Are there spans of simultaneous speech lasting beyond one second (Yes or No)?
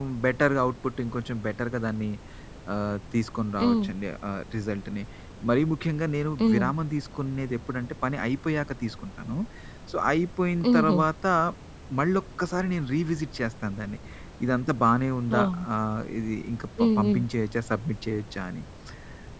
No